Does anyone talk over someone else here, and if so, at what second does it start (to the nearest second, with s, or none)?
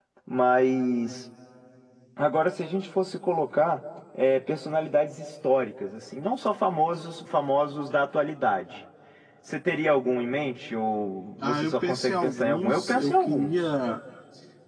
11 s